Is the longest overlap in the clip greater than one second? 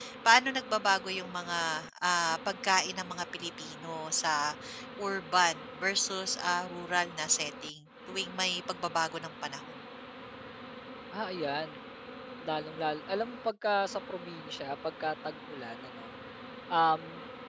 No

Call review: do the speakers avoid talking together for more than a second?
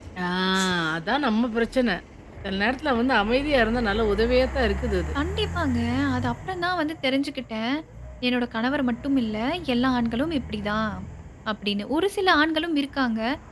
Yes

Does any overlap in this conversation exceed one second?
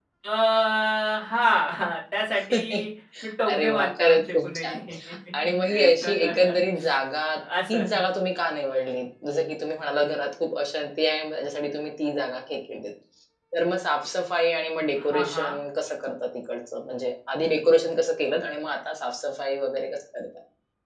Yes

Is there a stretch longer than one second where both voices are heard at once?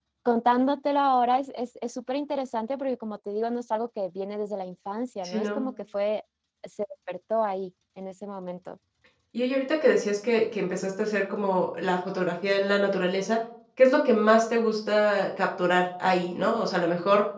No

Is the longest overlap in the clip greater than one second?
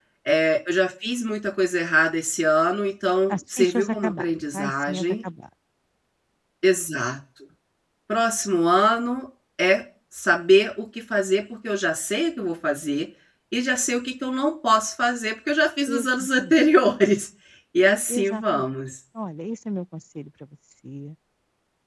Yes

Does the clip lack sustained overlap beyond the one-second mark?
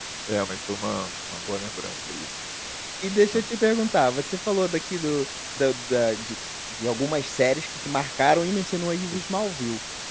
Yes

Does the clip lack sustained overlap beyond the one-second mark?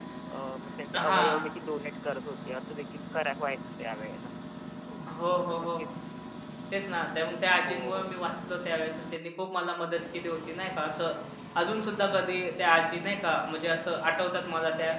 Yes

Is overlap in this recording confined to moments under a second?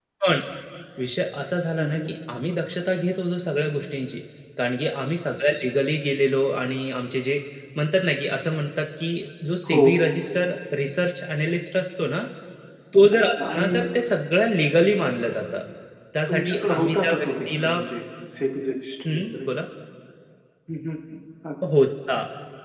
No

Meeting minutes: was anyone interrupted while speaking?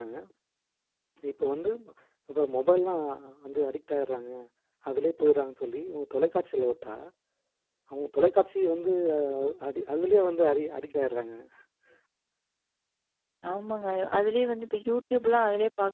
No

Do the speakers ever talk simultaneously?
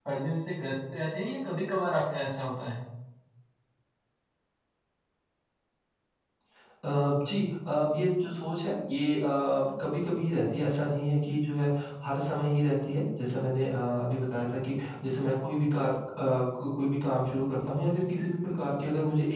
No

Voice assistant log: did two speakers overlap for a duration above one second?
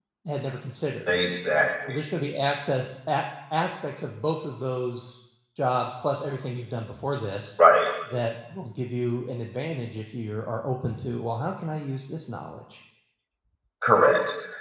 No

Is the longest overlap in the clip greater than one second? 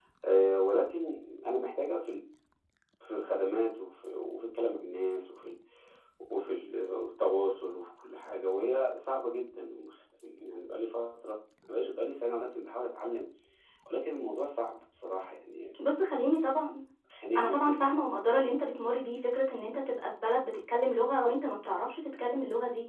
No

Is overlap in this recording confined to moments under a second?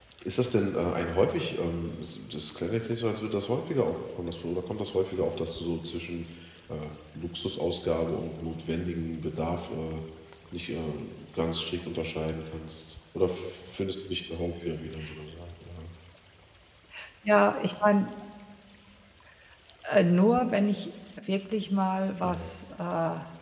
Yes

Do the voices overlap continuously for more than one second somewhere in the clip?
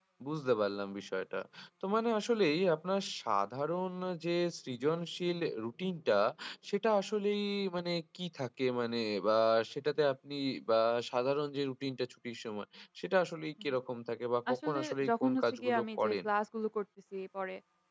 Yes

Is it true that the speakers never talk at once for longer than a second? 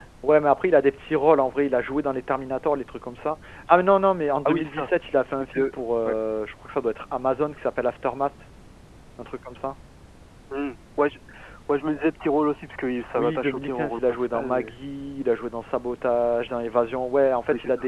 No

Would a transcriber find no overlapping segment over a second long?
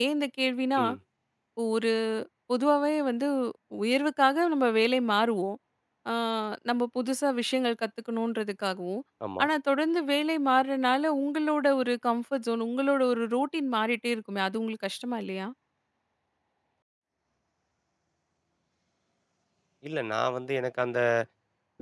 Yes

